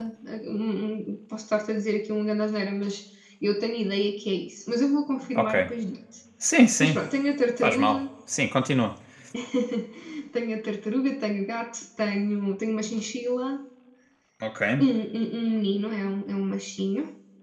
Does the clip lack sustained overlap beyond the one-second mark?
Yes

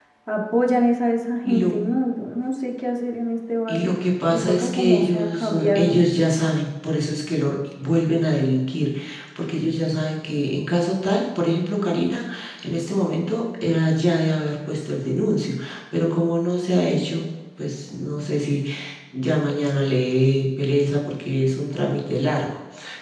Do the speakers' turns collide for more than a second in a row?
Yes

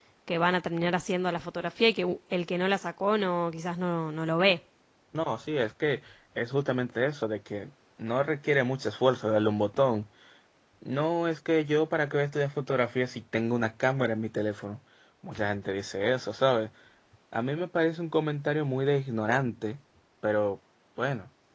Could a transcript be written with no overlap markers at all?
Yes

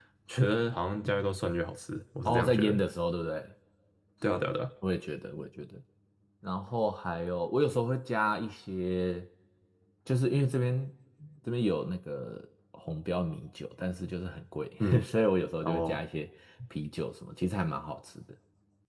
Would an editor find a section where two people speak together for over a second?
No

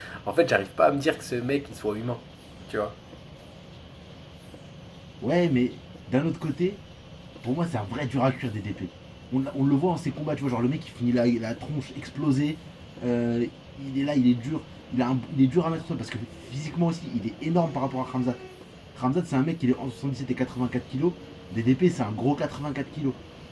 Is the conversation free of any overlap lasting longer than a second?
Yes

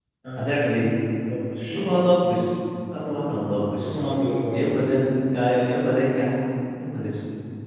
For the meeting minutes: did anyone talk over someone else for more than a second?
No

